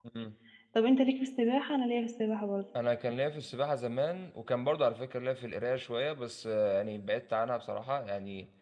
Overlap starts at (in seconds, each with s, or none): none